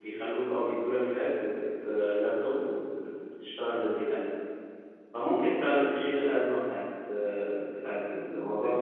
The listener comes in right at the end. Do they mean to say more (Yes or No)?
Yes